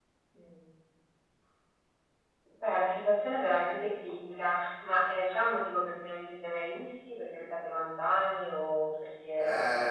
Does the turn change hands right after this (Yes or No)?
Yes